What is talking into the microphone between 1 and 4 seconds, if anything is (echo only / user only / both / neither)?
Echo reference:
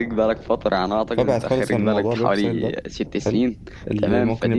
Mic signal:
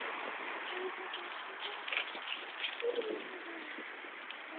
neither